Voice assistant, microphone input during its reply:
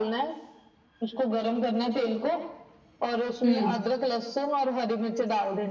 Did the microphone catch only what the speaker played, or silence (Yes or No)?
No